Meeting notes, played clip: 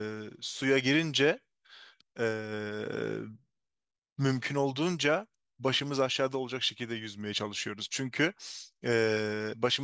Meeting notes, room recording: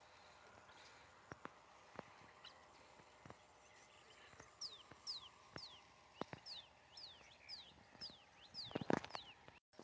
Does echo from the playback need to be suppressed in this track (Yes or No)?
No